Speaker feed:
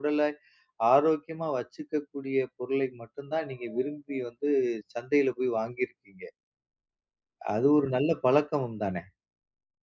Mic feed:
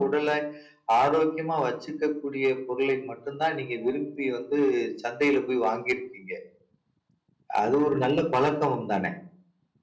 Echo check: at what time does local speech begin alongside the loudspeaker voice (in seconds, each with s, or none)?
none